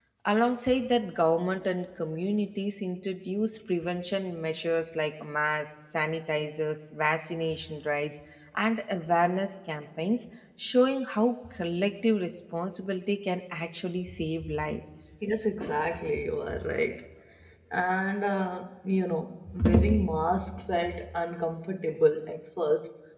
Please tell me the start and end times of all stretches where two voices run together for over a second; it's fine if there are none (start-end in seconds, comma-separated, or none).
none